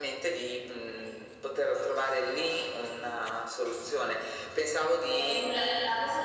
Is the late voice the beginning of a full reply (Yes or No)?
Yes